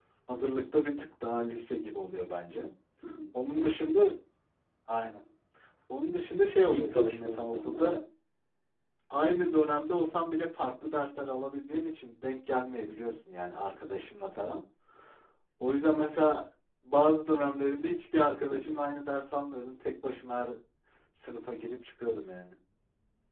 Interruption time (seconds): 6.7 s

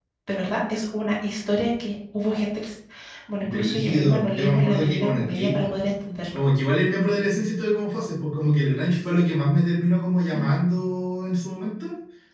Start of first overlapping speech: 3.4 s

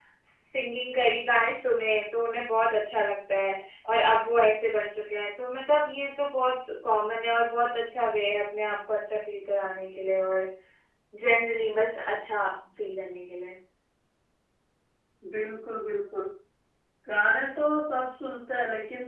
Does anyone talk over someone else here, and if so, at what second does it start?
none

